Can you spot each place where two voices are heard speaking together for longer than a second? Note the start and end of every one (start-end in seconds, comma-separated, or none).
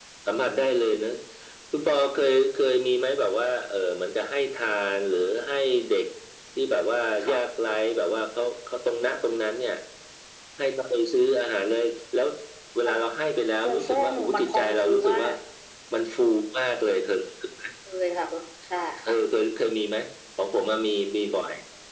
13.7-15.3